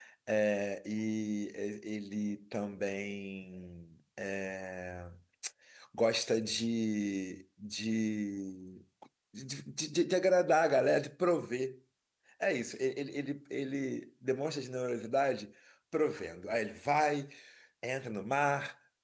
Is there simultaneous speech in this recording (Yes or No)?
No